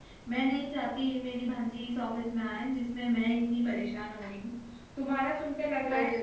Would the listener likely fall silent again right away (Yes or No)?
Yes